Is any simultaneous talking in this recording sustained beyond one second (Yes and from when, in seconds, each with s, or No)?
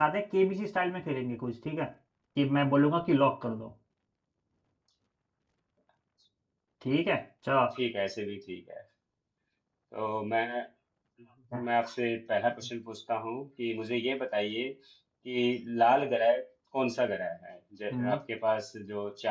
No